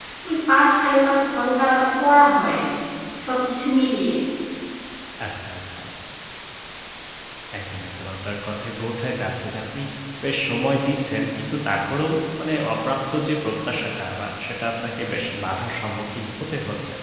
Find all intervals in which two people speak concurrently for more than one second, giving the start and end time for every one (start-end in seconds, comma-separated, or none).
none